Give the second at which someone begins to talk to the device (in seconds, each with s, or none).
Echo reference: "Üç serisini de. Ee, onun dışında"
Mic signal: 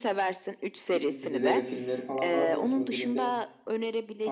0.9 s